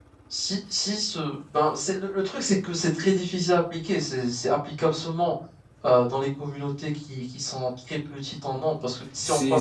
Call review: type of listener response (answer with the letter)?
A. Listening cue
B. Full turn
B